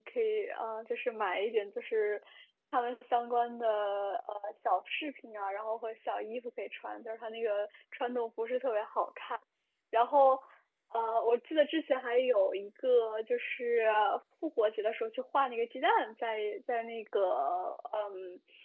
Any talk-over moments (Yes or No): No